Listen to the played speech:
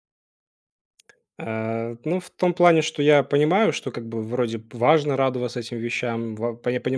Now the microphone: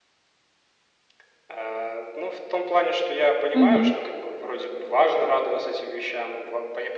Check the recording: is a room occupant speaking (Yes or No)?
Yes